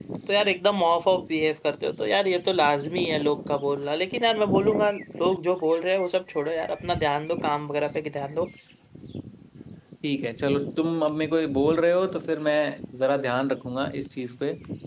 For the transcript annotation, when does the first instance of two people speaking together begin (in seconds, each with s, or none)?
none